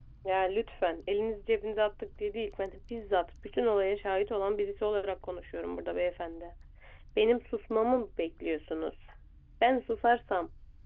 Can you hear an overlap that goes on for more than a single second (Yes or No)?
No